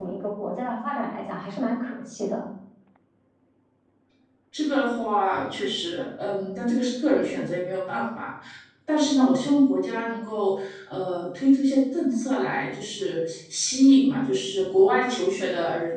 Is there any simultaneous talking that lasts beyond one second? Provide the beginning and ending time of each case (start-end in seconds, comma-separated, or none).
none